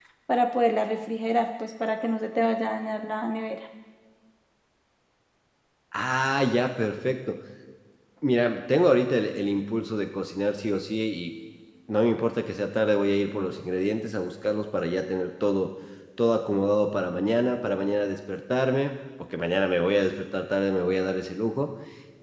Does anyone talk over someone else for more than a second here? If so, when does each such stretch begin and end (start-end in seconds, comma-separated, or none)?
none